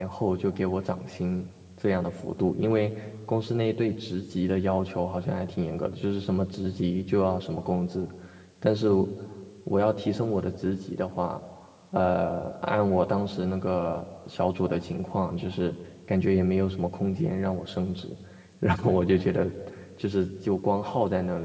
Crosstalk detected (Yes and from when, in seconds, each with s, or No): No